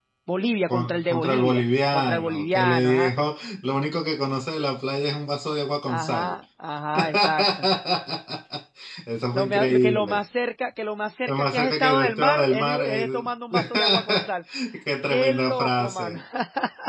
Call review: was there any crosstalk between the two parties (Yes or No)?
Yes